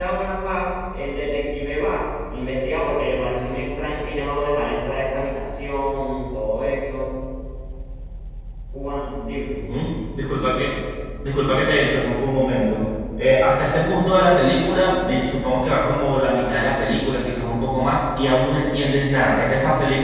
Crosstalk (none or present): none